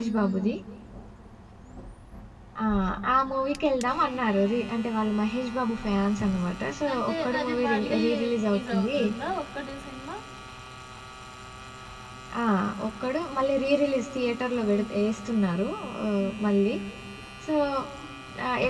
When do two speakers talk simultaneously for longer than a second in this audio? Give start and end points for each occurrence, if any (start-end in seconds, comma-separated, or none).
6.9-9.0